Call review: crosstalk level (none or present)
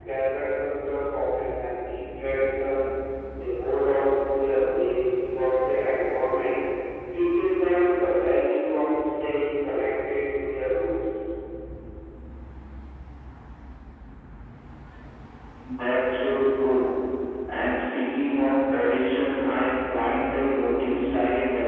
none